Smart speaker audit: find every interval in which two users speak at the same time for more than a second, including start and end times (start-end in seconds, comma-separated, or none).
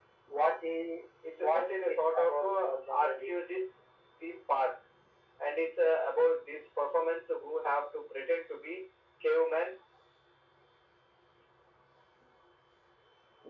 1.4-3.3